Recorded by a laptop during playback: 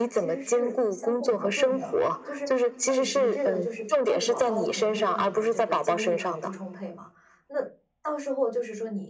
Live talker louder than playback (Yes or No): No